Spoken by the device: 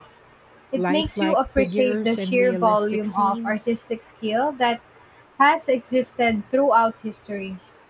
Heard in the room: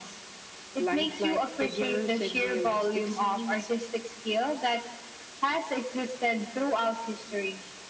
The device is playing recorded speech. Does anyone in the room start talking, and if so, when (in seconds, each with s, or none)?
none